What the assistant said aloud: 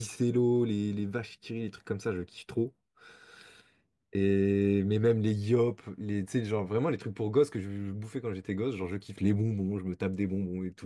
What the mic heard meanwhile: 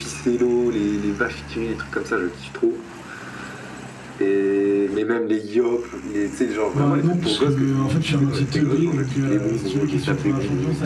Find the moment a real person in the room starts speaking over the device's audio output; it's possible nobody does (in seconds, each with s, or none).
6.7 s